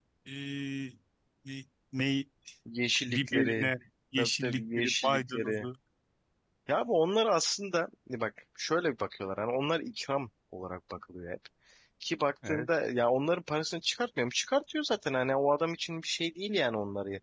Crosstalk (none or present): present